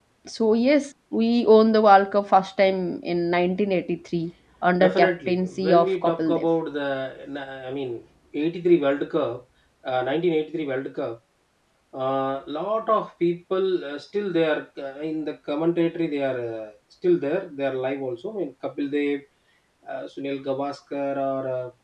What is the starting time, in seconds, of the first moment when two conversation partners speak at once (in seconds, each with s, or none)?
4.8 s